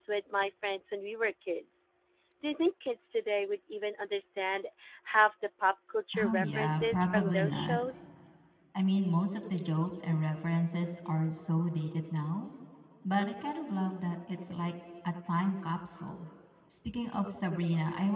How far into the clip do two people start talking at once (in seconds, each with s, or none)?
6.1 s